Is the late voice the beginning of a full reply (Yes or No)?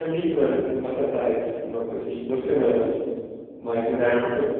No